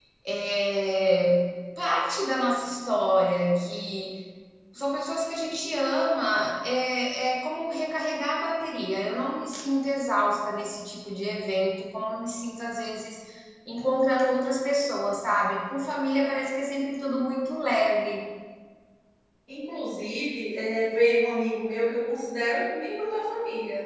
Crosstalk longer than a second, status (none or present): none